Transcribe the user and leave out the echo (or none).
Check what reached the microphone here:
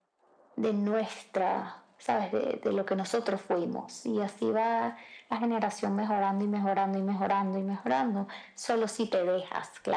none